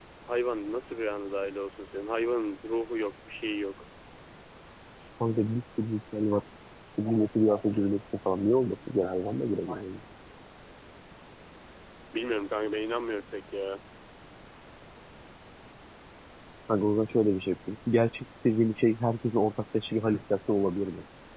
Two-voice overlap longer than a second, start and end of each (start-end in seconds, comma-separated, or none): none